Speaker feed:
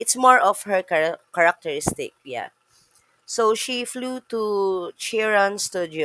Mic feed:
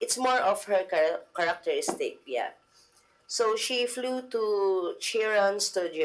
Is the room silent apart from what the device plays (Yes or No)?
Yes